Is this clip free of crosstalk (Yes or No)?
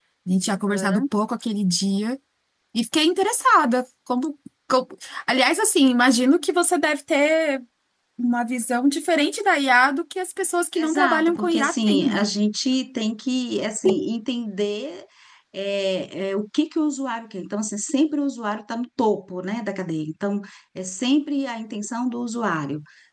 No